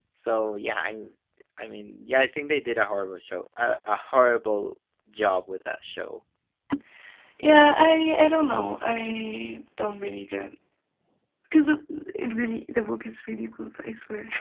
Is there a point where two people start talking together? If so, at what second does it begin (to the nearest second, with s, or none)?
none